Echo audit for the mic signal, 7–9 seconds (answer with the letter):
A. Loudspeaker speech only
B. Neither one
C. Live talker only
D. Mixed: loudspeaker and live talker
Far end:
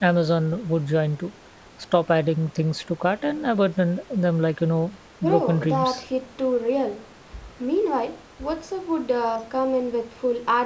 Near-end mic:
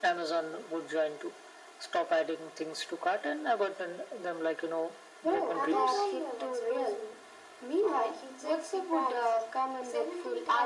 D